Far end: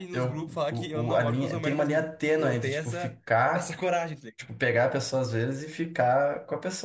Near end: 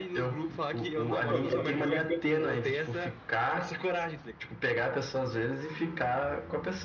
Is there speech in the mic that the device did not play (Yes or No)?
Yes